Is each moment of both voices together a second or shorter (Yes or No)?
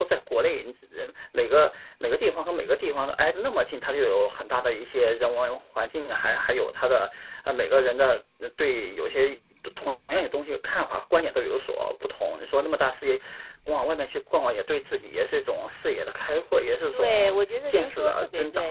No